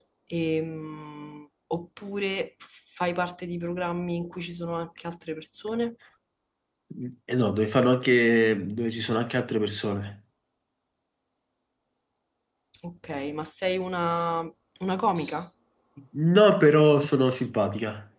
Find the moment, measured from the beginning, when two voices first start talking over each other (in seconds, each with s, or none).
none